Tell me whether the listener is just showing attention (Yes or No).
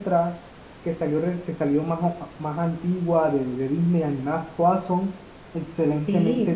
No